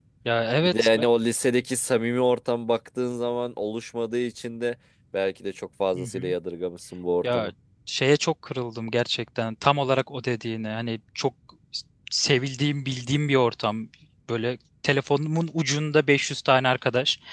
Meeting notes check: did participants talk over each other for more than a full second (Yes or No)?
No